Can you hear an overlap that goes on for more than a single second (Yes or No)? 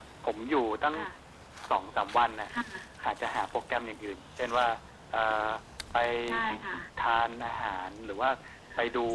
No